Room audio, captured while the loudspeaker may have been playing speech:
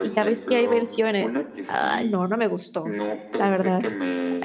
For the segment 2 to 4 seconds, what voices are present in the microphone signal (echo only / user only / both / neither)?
both